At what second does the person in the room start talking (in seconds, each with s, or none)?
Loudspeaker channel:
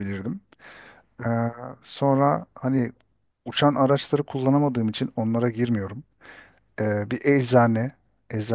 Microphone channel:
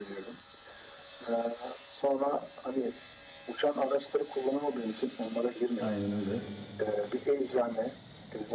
5.8 s